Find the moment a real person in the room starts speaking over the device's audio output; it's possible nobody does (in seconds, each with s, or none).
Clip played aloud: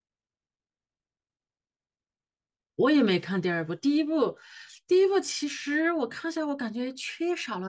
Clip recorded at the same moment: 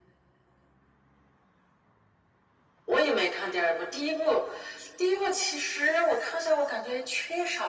none